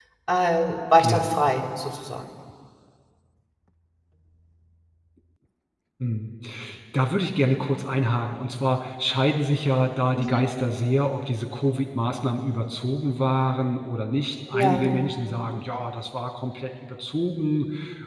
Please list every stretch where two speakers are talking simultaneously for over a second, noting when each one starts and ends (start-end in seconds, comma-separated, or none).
none